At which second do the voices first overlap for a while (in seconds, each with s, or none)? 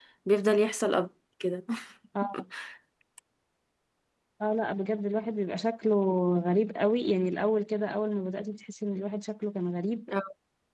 none